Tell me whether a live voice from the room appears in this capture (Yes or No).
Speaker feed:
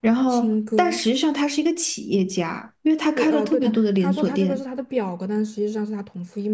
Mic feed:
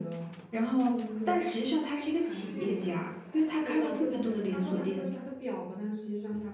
Yes